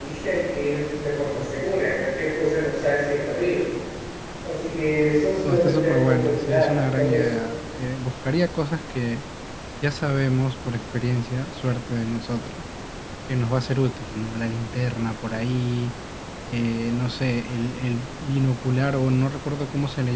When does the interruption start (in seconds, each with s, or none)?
5.4 s